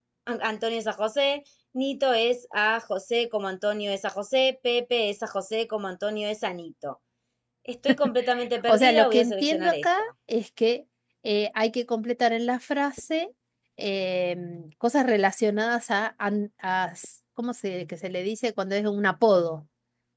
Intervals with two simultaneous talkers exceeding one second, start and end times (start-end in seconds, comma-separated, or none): 8.7-10.1